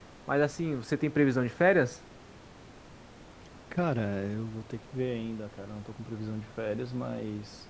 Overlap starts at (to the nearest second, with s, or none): none